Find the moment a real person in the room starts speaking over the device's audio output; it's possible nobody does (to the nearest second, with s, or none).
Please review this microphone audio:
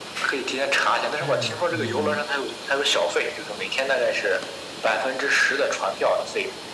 1 s